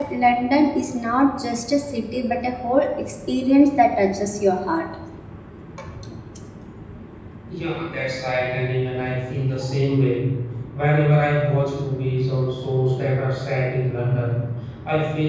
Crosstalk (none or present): none